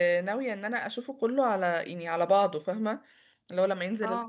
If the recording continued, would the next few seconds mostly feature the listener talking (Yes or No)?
No